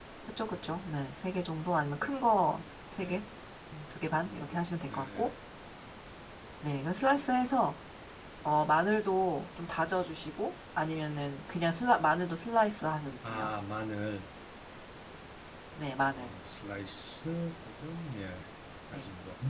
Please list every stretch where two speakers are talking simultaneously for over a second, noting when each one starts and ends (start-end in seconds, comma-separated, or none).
4.1-5.3